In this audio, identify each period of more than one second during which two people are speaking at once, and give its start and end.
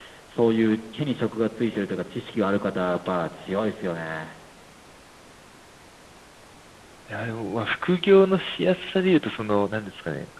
none

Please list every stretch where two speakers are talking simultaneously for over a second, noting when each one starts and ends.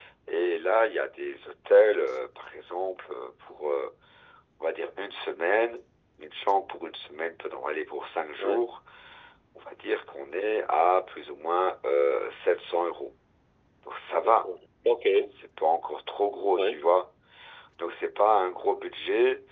none

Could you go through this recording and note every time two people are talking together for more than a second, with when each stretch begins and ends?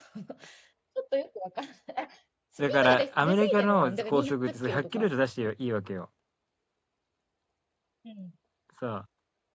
2.6-5.1

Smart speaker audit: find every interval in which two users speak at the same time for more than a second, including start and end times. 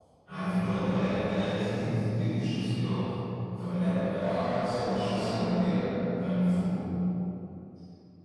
4.2-5.8

